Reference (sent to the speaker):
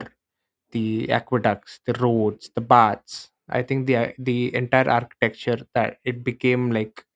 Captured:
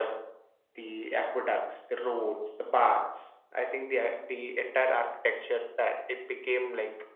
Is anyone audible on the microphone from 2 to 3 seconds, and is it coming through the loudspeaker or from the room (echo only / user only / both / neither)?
echo only